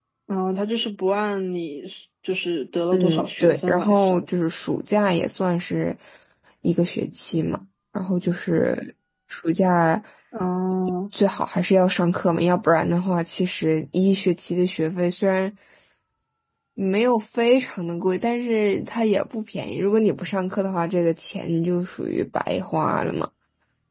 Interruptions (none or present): present